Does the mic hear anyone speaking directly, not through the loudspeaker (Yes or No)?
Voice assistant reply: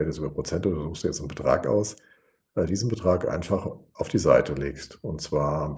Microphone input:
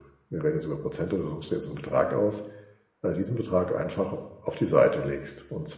No